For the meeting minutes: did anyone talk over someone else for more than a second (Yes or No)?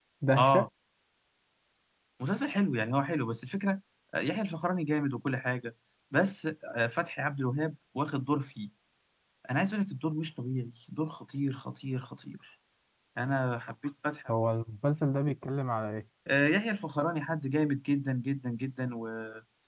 No